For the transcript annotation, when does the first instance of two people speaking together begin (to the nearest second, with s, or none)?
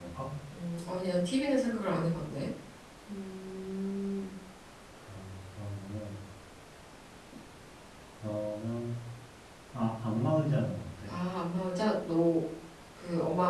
none